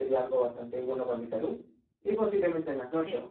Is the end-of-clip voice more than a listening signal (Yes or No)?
No